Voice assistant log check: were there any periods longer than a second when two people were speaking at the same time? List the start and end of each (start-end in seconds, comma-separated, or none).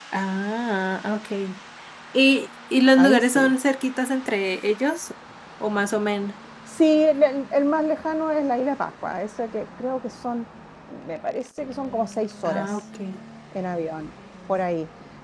none